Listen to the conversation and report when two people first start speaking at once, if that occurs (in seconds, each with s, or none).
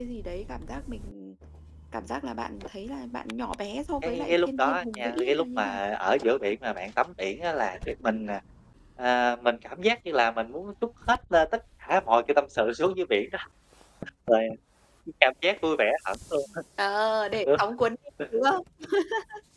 4.0 s